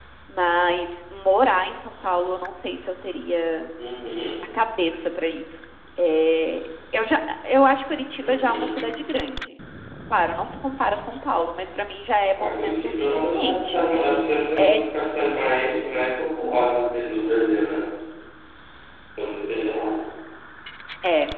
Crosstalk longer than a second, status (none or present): present